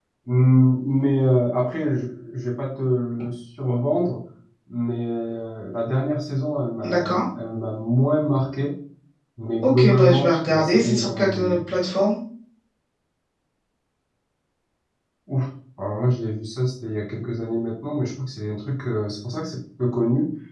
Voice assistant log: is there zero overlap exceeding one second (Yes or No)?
No